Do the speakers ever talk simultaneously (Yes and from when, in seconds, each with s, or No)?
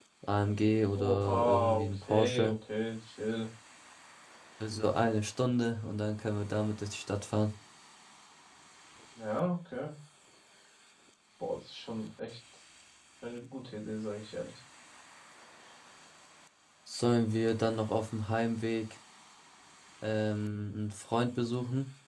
Yes, from 1.0 s